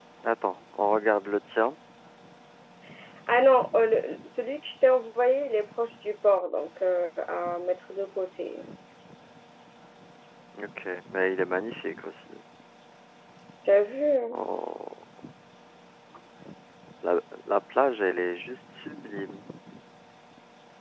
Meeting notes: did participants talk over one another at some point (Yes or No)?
No